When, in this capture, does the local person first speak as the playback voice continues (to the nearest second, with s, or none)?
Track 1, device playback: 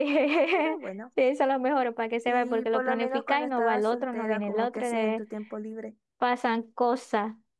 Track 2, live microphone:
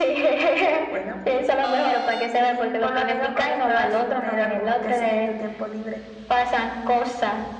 none